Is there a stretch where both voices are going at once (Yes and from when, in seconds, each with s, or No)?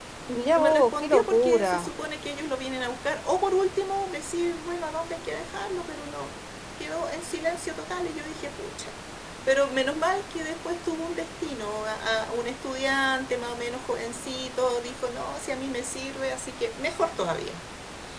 Yes, from 0.6 s